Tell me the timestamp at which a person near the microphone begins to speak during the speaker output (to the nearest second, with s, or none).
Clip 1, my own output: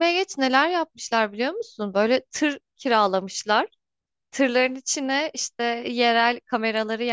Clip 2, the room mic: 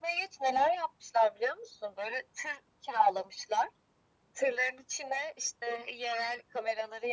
none